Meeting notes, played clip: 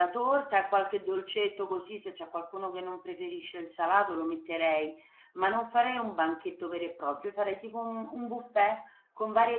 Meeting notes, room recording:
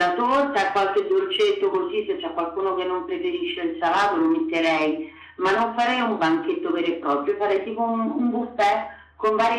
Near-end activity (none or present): none